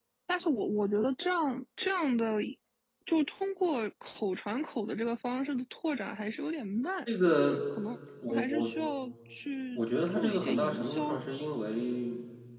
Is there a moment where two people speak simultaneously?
Yes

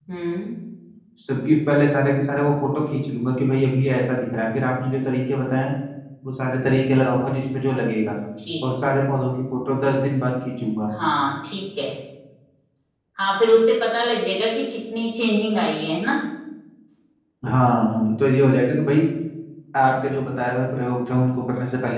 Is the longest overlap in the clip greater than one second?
No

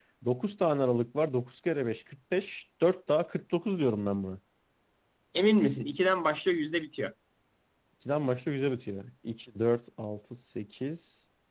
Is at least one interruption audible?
No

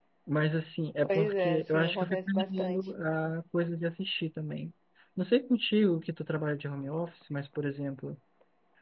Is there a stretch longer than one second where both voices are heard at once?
Yes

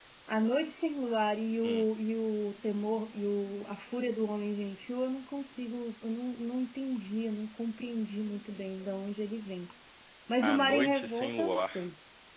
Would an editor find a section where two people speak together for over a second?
Yes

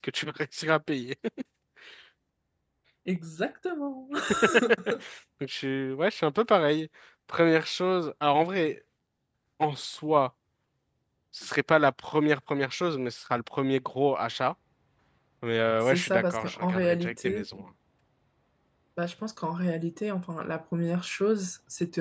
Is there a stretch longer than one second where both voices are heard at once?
Yes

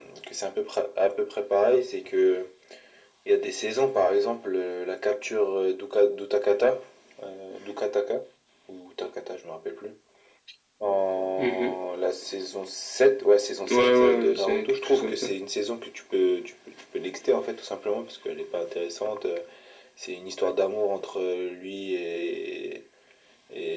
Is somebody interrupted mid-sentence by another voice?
Yes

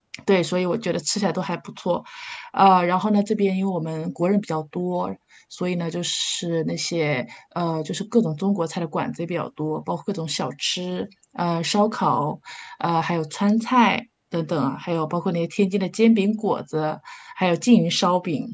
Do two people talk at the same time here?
No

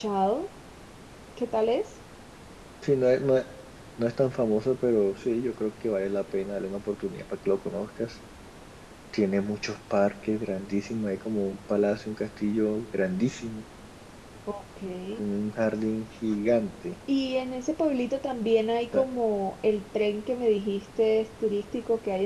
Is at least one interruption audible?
No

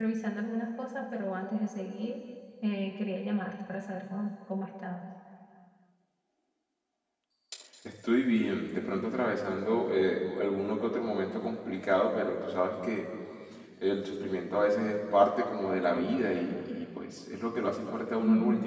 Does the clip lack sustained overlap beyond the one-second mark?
Yes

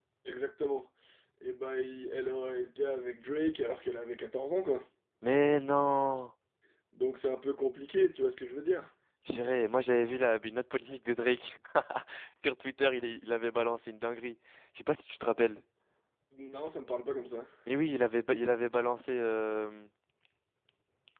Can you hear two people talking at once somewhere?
No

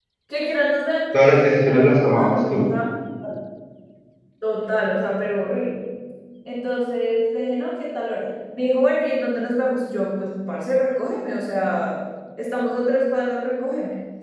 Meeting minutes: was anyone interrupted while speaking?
Yes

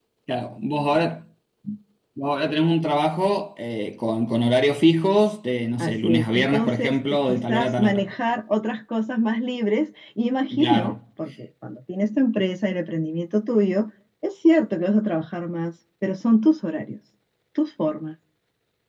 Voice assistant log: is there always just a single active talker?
No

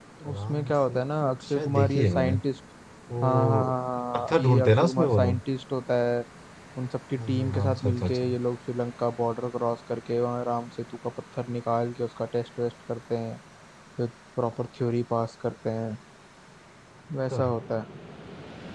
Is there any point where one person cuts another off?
Yes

